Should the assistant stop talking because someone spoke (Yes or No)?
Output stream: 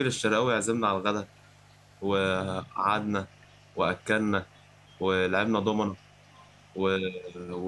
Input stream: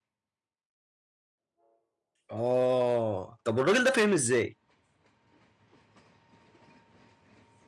Yes